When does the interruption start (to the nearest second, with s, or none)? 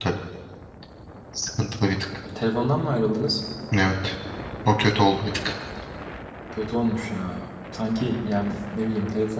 none